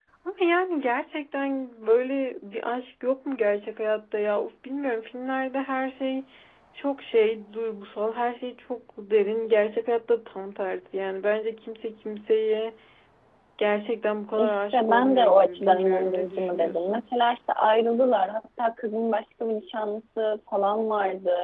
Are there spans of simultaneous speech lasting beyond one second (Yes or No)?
Yes